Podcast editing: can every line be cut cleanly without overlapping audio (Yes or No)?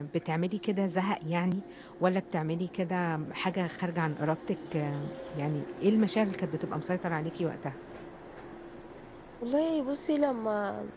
Yes